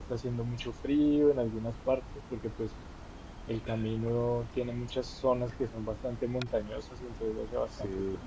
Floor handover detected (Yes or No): No